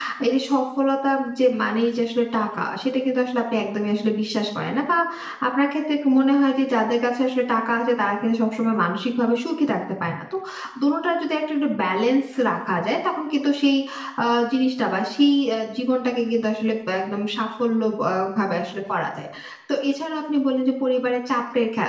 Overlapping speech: No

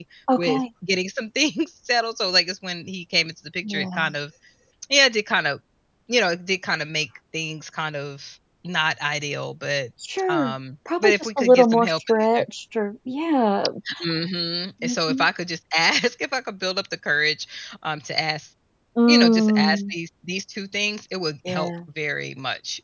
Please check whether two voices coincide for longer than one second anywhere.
Yes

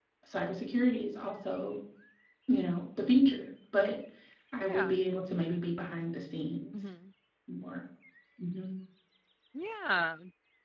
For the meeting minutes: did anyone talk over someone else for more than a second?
No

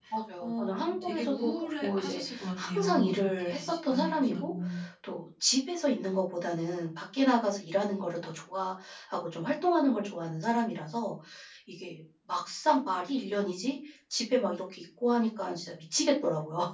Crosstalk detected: Yes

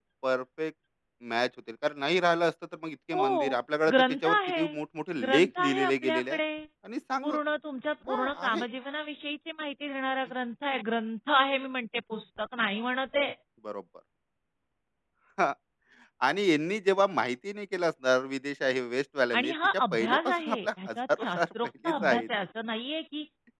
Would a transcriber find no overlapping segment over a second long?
No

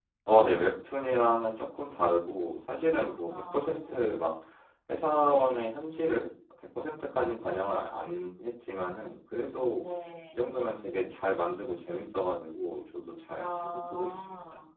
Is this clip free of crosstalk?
No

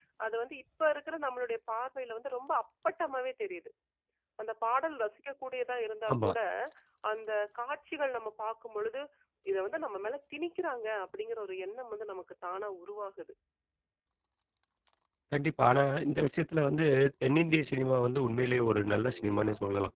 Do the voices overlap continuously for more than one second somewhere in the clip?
No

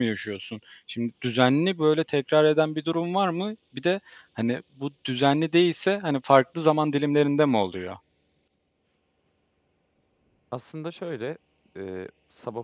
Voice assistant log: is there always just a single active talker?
Yes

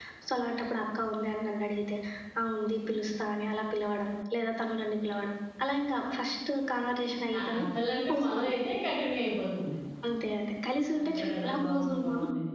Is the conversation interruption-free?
No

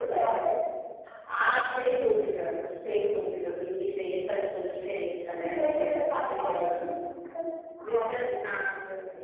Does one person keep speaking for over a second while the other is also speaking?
Yes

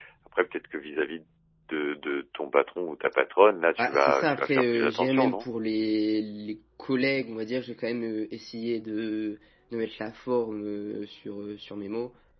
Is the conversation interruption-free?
No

